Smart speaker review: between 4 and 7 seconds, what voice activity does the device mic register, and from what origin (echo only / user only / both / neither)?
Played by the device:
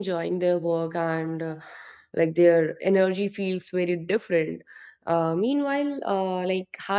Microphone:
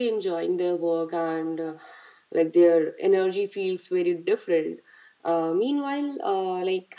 echo only